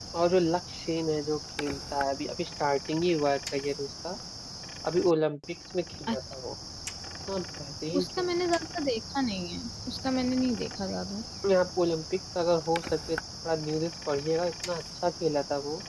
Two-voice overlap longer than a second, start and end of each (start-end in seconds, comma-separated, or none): none